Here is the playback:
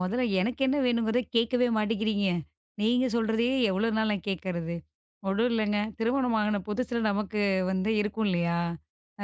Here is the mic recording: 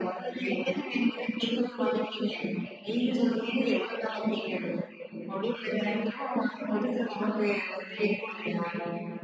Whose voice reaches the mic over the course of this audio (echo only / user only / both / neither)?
echo only